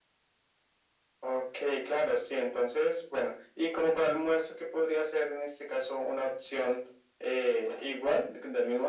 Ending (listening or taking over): listening